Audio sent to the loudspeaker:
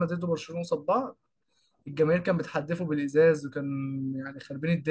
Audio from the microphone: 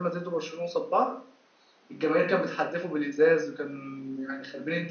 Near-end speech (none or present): none